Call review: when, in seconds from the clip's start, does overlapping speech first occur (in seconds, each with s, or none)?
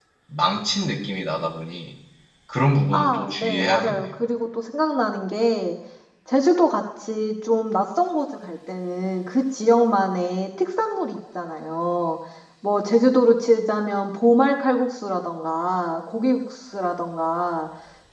2.9 s